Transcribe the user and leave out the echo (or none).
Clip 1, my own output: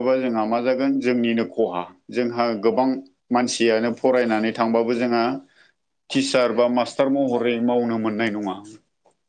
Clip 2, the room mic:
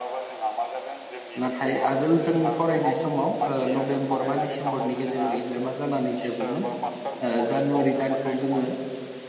नाथाय आगोल जों फरायनाय समाव ओं नभेम्बर बा डिसेम्बरनि गेजेराव एग्जामा जानानै जोबोमोन। ओ जानुवारि दानखौ जोङो